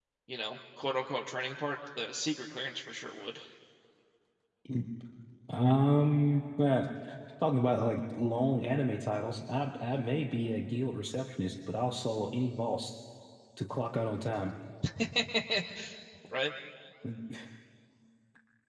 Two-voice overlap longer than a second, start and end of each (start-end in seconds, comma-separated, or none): none